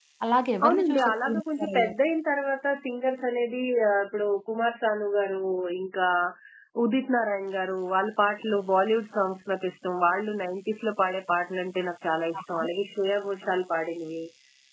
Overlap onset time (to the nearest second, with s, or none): 1 s